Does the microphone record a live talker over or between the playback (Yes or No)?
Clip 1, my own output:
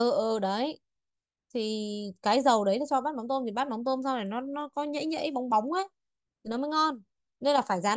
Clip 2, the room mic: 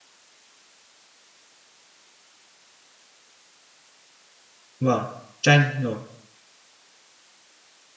Yes